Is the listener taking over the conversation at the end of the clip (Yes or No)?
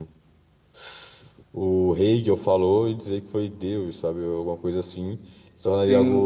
Yes